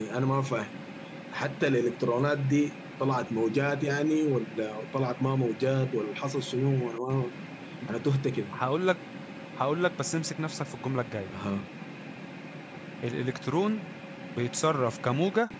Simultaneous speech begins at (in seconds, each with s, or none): none